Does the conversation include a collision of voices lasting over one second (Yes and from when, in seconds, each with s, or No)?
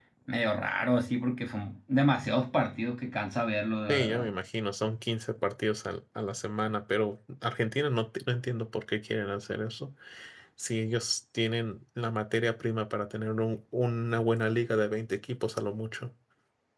No